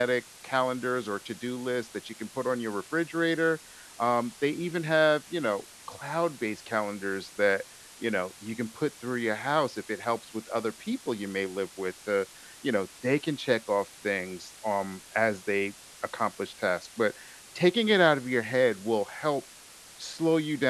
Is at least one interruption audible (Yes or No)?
No